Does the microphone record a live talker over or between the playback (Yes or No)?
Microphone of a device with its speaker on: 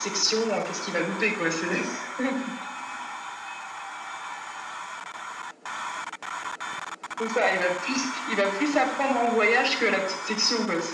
No